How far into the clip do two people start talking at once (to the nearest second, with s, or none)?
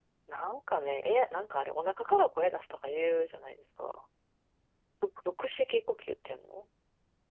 none